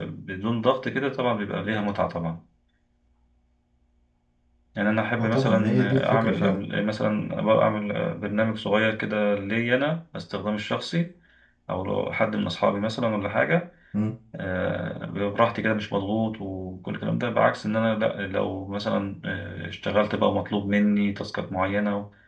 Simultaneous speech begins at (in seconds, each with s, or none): 5.2 s